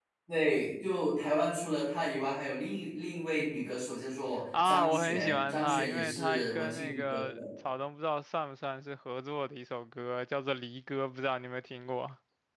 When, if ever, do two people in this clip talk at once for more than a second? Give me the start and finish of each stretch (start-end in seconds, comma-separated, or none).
4.6-7.4